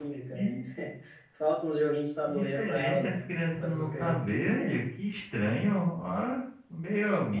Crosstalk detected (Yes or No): Yes